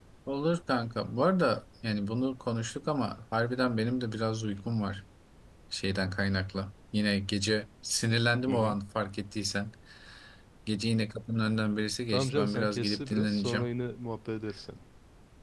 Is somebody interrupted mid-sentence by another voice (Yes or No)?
Yes